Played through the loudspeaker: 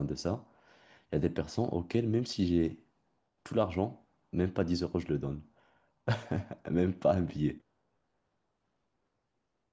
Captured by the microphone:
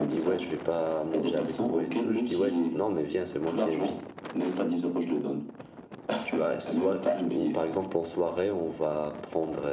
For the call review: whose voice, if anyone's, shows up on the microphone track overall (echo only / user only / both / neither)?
both